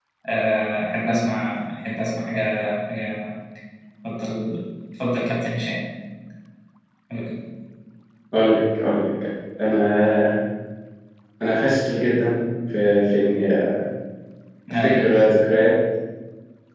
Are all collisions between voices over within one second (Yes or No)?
Yes